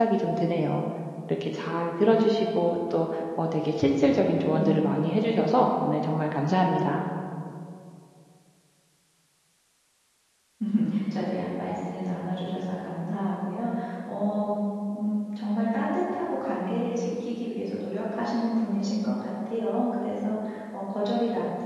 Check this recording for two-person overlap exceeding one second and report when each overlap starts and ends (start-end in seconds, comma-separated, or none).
none